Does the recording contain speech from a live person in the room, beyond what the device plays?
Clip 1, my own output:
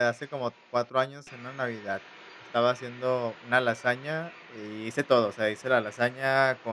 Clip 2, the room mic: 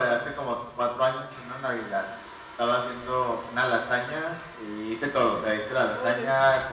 Yes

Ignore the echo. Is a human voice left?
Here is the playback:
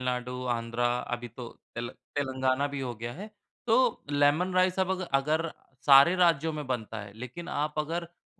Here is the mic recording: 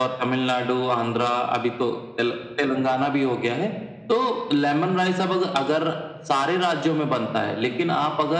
No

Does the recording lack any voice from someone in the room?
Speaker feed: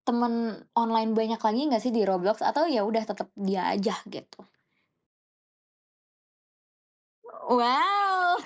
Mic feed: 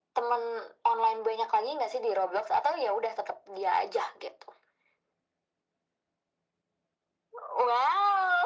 Yes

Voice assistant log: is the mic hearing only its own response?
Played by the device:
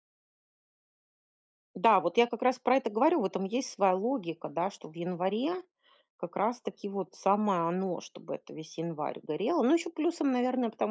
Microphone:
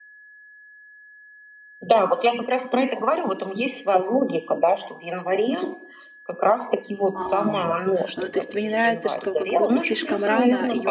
No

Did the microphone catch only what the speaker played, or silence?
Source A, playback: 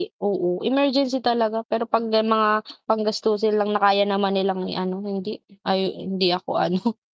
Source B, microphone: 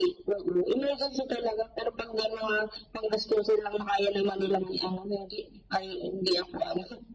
Yes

